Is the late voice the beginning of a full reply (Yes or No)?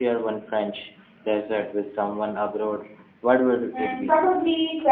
Yes